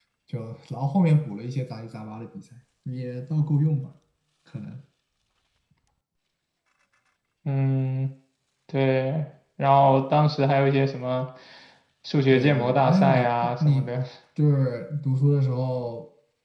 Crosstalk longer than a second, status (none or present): present